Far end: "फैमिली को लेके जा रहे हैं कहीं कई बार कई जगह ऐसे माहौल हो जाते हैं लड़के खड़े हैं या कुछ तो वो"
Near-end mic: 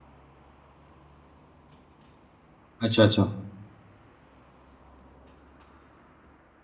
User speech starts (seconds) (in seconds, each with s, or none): 2.8 s